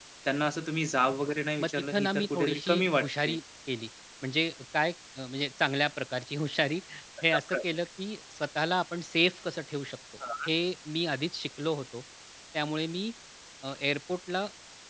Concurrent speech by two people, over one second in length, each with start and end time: 1.6-3.4

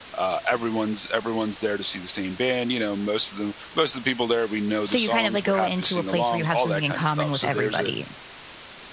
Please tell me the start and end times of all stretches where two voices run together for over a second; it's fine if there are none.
4.8-7.9

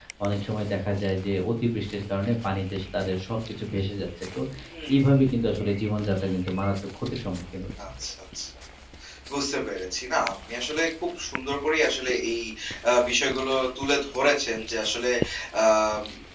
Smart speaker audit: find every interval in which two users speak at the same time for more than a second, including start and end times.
none

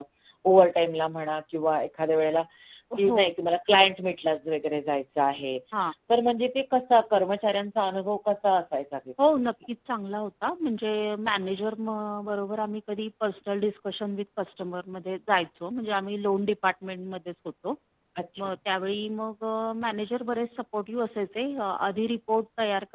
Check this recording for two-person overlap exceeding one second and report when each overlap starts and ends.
none

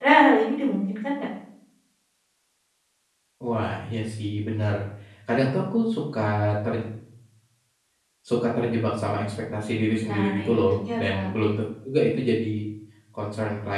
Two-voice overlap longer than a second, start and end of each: 10.1-11.3

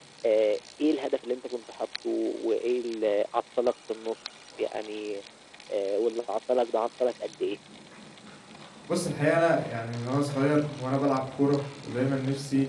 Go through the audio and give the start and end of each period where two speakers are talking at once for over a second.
none

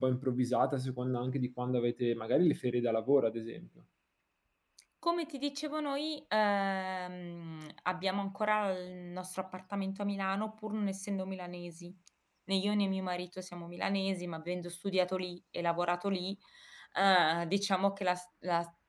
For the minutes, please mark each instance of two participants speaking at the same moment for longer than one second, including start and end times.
none

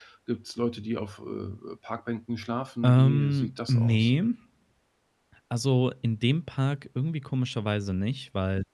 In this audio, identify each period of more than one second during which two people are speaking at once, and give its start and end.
2.8-4.1

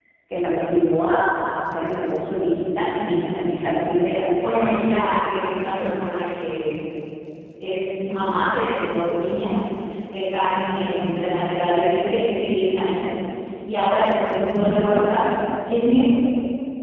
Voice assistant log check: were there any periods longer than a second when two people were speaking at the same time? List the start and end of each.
none

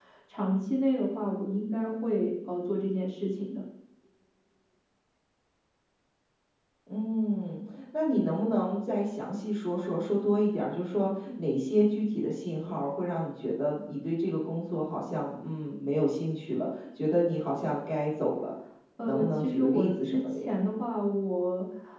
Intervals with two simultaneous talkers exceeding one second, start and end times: 19.0-20.6

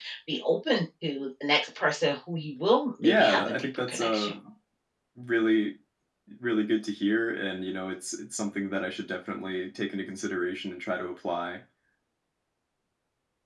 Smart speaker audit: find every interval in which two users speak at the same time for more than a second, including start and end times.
3.0-4.3

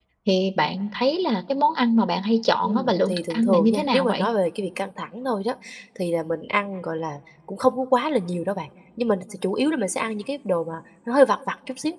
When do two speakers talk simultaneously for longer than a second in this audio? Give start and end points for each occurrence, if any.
2.6-4.3

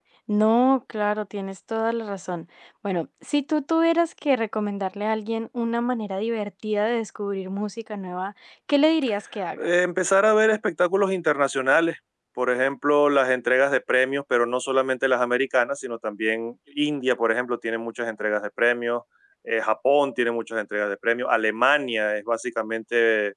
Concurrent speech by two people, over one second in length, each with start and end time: none

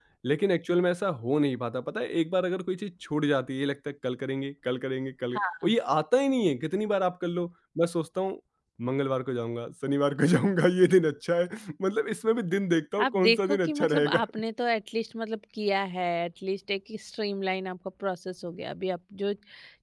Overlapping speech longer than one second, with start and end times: 13.0-14.2

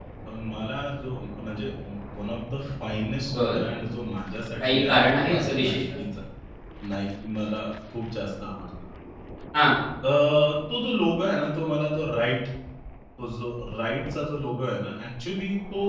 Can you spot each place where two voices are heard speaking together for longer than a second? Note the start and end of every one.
4.6-5.8

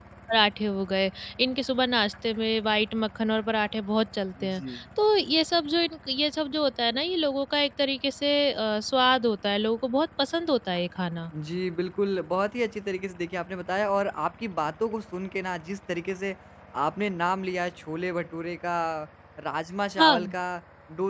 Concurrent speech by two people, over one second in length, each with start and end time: none

